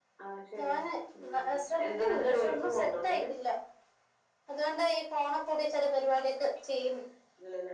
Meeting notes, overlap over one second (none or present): present